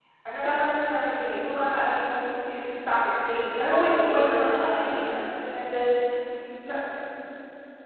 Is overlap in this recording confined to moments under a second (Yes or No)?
No